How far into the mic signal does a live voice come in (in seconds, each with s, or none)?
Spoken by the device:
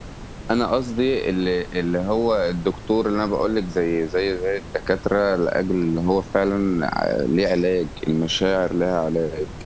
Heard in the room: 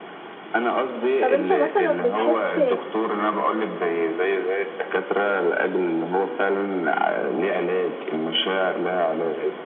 1.2 s